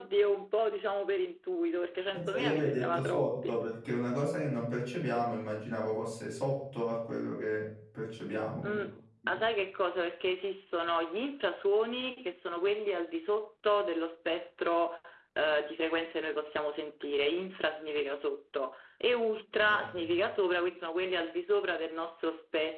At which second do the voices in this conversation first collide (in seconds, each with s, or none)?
2.1 s